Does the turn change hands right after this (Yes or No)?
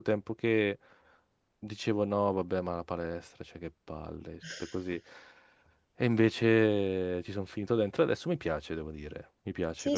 Yes